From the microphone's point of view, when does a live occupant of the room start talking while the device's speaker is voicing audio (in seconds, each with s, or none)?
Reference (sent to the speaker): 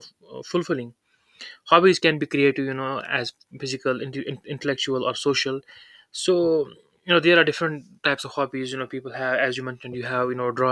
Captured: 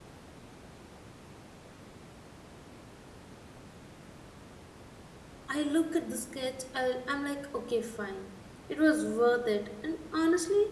5.5 s